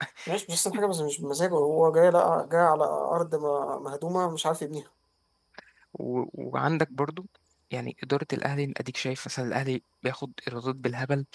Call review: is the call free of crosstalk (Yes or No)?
Yes